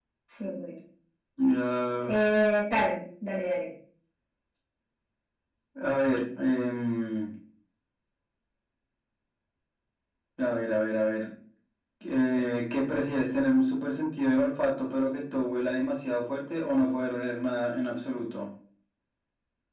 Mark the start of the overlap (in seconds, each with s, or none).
none